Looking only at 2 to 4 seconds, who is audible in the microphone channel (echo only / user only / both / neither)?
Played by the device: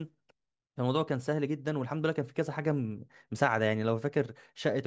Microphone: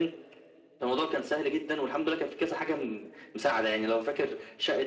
echo only